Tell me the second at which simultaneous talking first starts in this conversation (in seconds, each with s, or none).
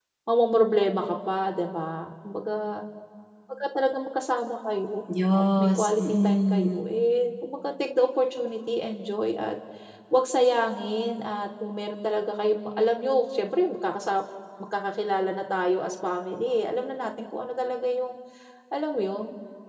5.4 s